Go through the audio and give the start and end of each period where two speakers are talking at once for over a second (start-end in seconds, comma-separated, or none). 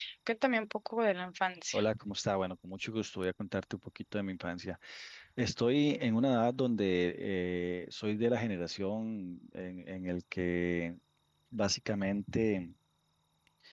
none